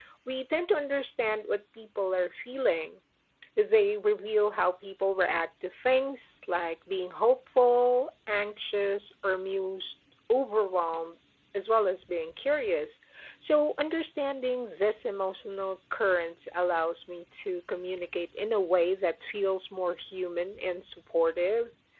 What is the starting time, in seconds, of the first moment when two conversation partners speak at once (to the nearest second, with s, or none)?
none